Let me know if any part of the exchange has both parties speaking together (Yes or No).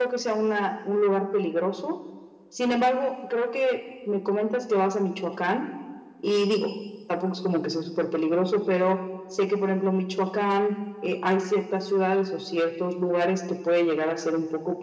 No